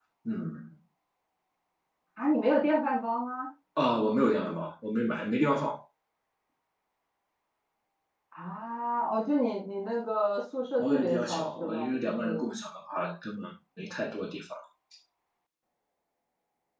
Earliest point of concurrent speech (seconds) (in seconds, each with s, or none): 10.8 s